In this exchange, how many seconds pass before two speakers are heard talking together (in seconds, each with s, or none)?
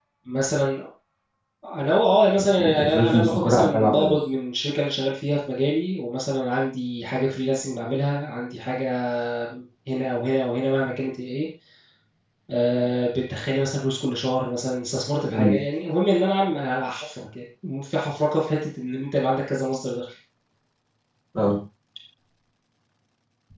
2.6 s